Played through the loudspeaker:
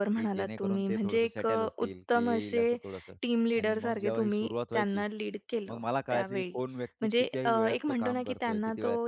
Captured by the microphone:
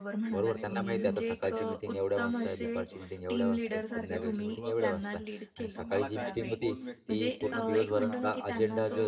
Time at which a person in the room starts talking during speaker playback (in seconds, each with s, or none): 0.3 s